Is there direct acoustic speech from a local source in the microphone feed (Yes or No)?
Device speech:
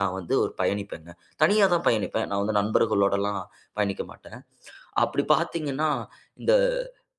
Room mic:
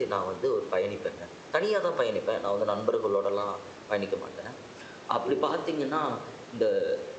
Yes